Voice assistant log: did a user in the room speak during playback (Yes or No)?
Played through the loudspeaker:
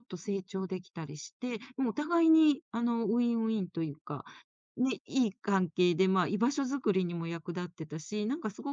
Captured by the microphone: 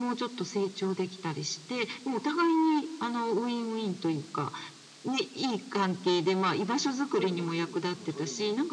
Yes